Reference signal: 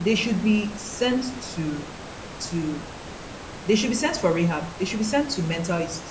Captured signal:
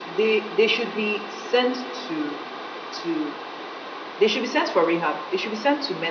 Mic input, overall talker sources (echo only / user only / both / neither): echo only